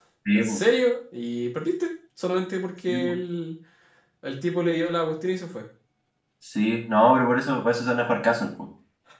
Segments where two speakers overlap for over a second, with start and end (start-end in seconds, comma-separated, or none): none